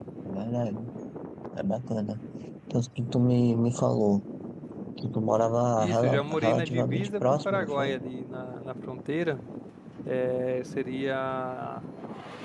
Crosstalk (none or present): present